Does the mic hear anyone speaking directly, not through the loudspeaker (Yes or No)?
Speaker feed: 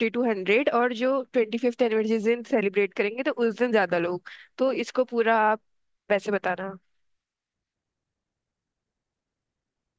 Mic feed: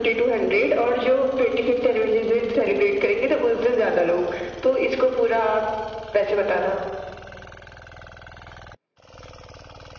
No